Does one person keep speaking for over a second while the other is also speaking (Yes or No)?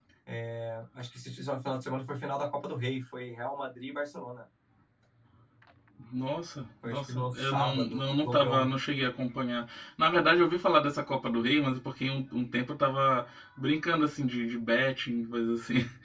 Yes